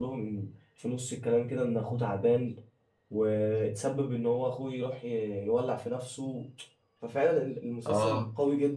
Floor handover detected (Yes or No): No